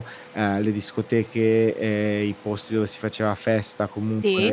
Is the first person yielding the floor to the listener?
No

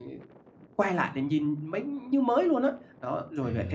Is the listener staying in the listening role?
Yes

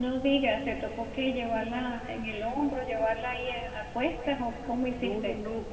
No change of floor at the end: No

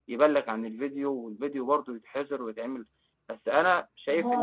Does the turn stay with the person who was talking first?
No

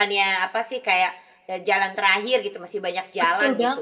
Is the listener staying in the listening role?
No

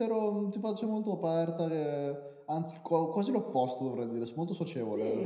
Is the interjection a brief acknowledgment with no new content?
No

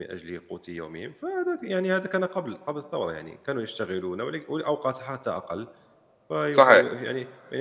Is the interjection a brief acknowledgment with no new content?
Yes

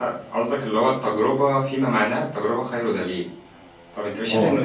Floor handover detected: No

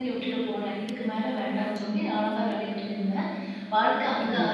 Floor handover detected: No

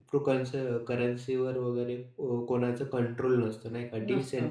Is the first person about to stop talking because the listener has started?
Yes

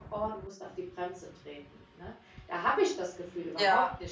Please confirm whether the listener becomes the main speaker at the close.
No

